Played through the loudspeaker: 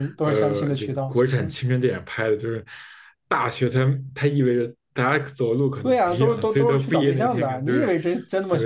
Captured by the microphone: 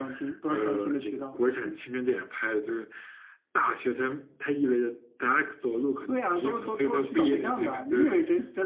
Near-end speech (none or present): none